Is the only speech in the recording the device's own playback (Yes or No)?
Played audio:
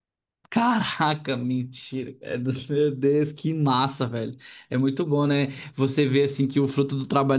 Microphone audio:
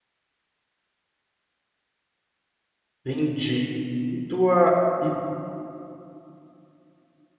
No